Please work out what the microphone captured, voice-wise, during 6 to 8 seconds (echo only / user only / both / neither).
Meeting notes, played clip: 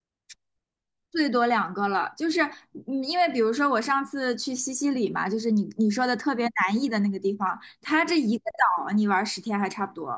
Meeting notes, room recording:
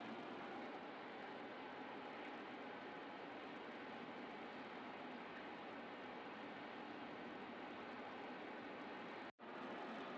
neither